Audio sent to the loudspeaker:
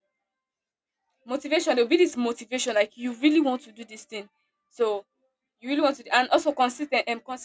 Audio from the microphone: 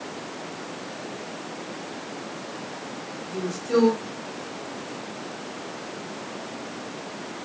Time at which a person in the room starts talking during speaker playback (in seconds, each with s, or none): 3.3 s